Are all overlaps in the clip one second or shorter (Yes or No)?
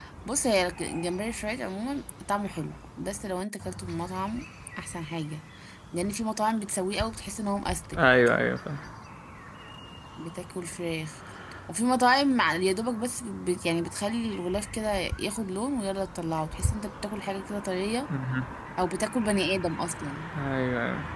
Yes